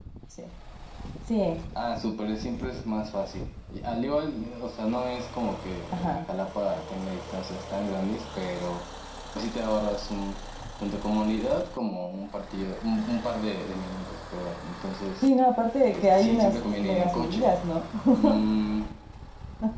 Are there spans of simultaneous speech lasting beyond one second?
Yes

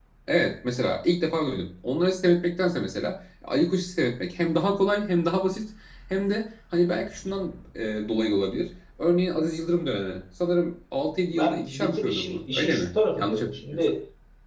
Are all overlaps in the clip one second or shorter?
No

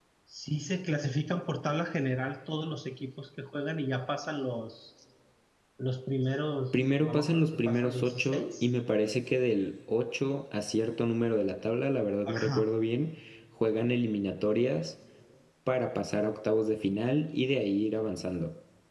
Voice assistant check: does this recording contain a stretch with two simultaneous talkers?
Yes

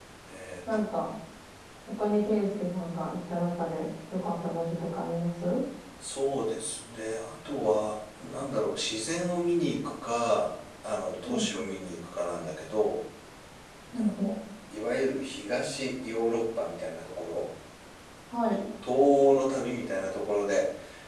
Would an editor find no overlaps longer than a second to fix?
Yes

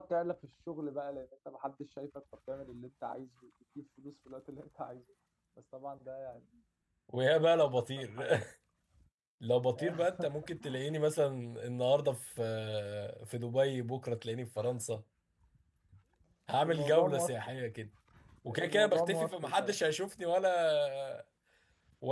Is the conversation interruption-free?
No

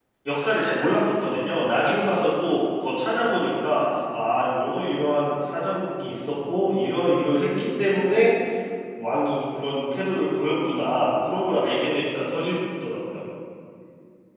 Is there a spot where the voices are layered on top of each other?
No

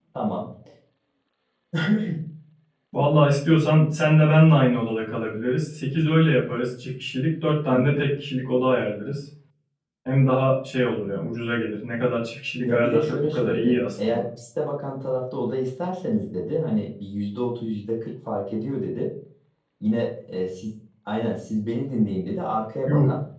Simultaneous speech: Yes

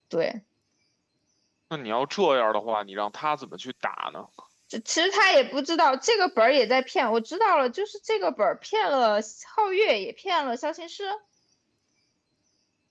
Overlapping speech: No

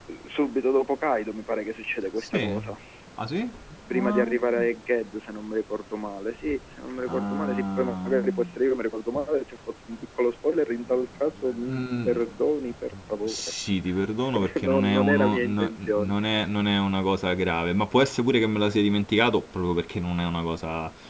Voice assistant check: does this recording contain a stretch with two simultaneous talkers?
Yes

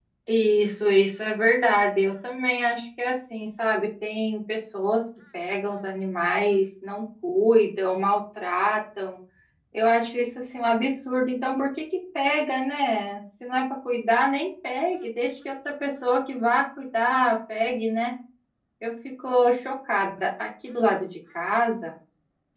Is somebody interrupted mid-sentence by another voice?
No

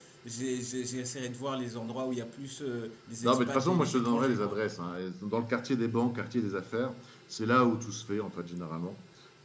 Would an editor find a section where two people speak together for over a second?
Yes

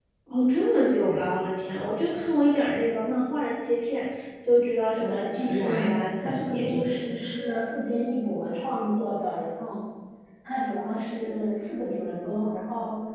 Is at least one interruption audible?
Yes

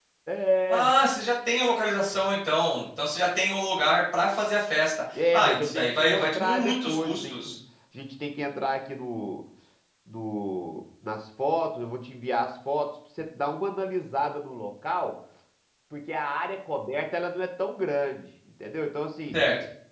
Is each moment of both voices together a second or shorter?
No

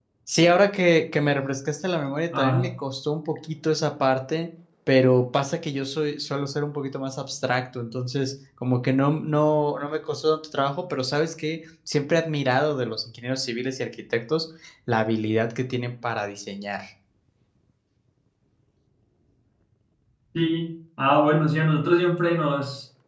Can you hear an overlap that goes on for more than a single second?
No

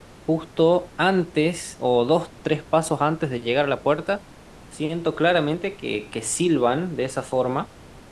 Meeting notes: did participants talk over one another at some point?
No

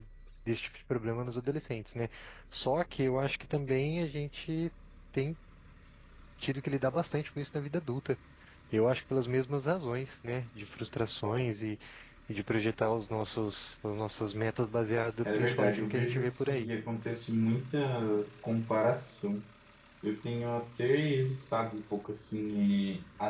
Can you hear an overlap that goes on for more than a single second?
Yes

